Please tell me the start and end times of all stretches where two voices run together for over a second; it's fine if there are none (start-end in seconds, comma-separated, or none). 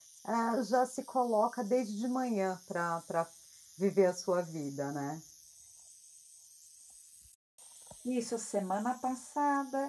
none